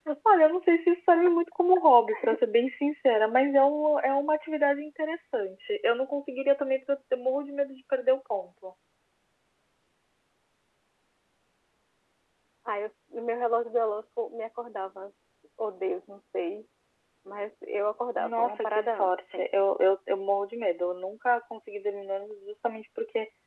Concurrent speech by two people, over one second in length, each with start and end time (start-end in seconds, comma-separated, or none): 18.2-19.6